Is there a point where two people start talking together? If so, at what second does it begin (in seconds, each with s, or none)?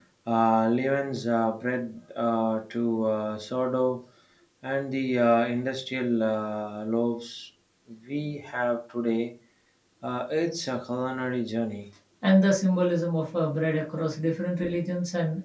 none